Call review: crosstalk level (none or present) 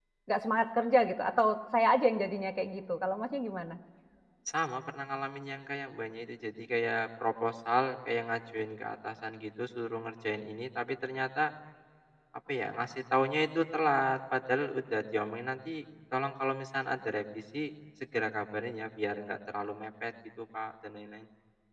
none